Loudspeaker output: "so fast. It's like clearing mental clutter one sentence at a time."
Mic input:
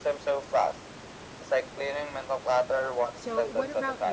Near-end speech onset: 3.1 s

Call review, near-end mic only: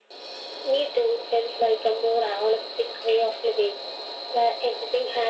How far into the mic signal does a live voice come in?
none

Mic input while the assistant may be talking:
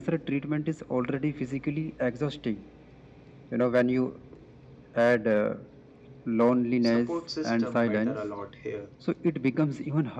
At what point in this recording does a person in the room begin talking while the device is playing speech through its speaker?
6.8 s

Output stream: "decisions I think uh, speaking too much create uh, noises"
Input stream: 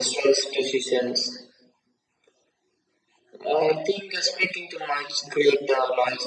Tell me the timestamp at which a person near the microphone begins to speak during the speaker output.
none

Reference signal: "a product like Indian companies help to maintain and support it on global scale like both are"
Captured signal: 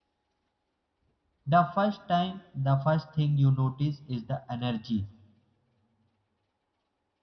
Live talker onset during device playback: 1.6 s

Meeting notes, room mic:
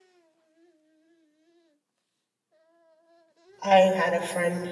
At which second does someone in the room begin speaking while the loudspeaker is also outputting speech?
3.6 s

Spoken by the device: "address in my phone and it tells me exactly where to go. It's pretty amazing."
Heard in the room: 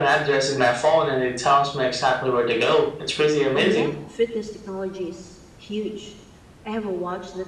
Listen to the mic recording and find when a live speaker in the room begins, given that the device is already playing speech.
3.5 s

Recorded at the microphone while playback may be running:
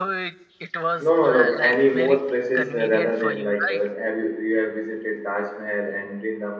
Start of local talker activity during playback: 1.0 s

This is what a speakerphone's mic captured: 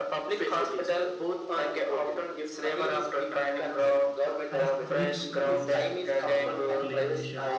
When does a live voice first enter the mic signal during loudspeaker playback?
4.5 s

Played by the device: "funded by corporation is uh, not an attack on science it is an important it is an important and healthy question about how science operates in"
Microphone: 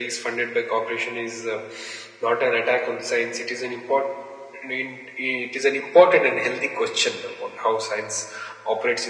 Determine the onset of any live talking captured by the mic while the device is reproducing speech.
none

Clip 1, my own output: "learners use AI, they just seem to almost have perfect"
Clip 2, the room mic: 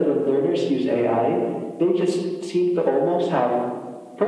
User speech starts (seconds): none

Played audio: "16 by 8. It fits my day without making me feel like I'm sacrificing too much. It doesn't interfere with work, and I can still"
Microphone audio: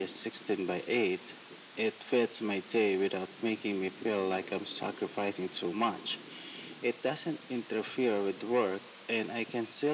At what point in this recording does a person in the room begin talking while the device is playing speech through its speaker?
none

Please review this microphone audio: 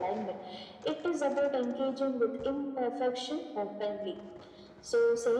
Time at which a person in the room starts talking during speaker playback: none

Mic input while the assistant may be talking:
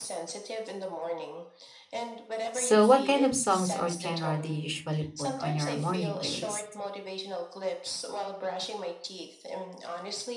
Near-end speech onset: 2.5 s

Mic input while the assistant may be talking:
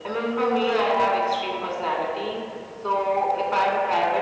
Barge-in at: none

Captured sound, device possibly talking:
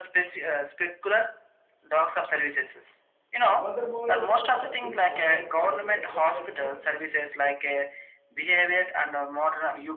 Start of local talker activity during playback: 3.4 s

